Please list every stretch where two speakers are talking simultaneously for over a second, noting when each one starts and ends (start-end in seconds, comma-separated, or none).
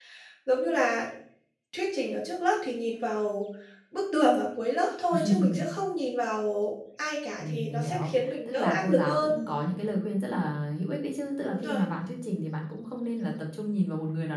7.4-9.3